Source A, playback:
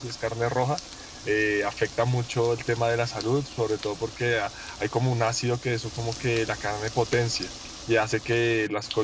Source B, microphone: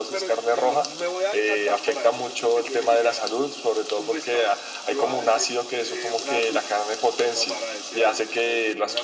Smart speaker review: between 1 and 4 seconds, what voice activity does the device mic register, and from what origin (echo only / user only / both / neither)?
both